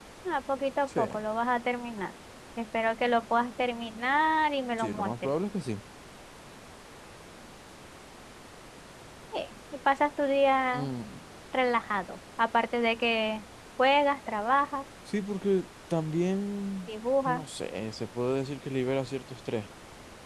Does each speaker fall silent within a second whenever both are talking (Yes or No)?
Yes